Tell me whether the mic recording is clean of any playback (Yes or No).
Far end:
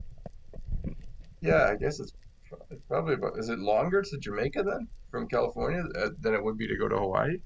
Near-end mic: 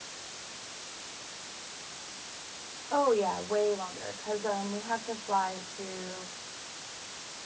Yes